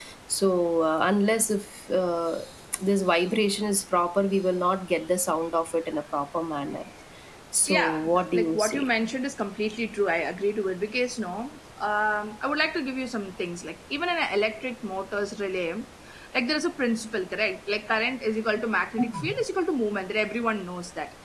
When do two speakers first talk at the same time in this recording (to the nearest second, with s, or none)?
8 s